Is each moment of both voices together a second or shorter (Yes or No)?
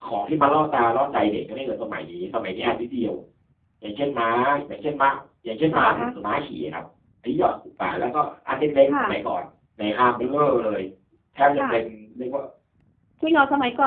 Yes